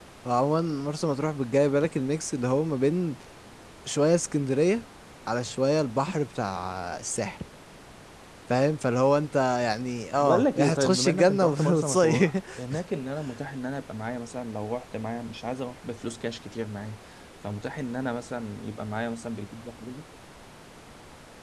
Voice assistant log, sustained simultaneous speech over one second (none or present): present